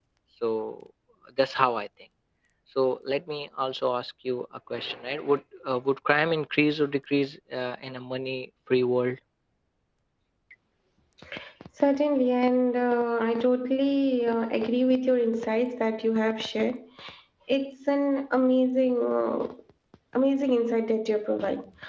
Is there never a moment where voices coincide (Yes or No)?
Yes